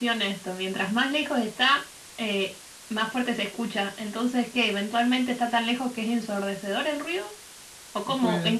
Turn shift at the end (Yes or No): No